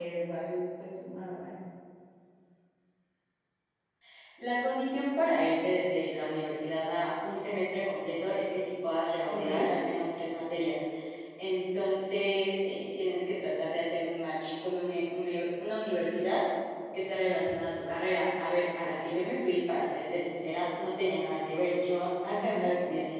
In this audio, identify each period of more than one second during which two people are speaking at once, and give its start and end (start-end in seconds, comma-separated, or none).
none